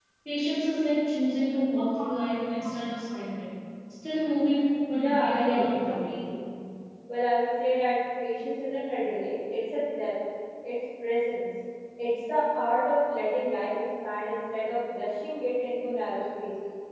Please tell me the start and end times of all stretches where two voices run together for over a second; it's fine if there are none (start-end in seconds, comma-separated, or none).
4.8-6.2